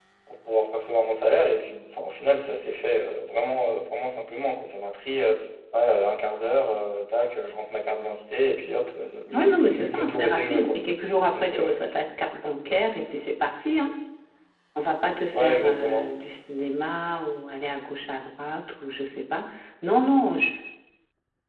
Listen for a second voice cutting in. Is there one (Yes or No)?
Yes